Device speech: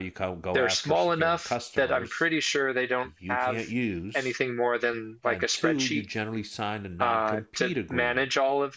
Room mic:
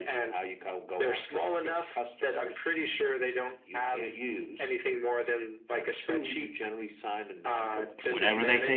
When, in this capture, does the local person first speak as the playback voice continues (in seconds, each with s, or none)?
7.4 s